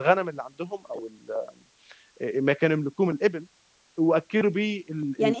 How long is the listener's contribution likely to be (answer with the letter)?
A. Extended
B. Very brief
A